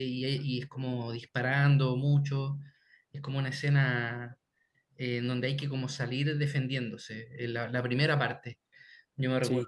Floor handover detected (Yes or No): Yes